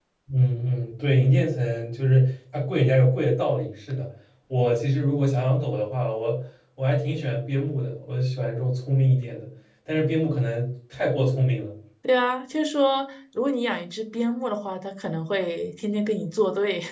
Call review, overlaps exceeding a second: none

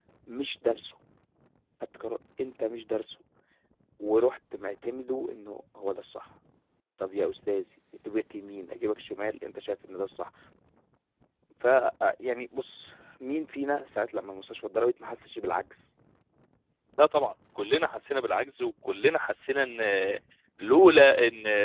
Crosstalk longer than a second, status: none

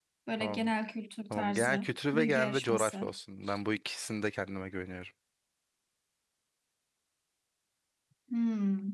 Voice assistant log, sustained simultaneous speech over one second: present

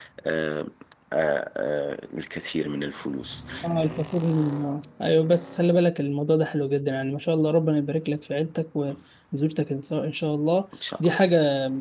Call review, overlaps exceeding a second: none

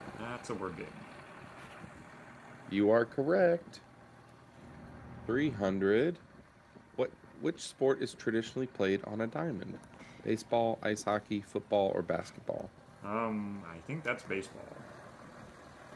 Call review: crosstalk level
none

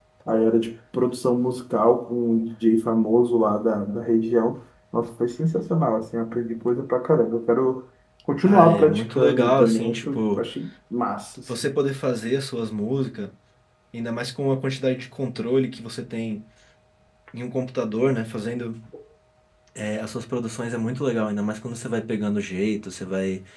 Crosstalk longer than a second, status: present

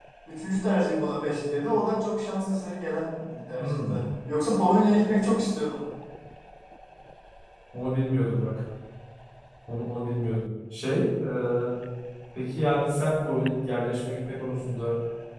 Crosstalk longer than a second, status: none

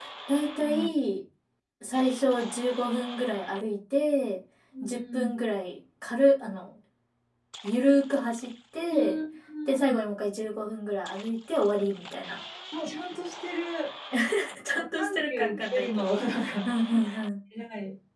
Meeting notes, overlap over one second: present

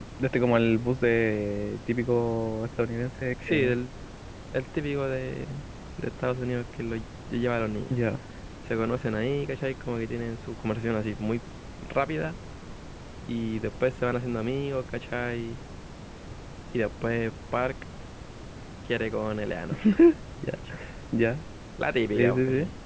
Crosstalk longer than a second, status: none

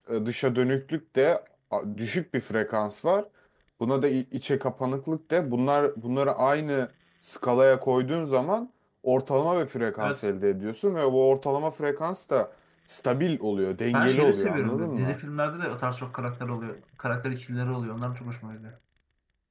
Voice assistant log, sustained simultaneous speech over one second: present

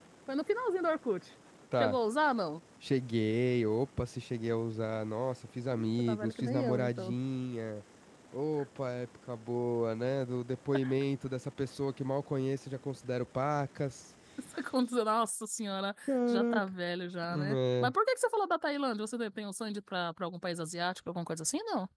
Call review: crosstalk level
present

